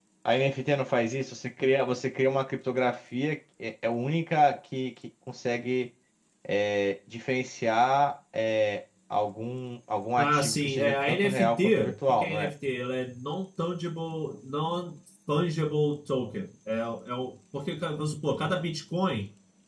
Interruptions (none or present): present